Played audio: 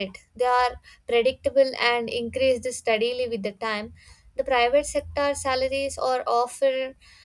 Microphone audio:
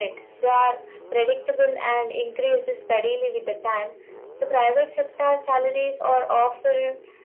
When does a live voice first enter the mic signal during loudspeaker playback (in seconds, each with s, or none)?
none